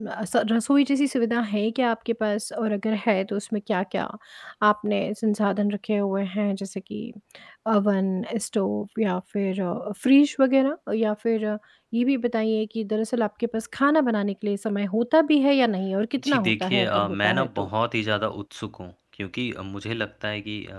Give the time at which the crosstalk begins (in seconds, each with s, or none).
16.2 s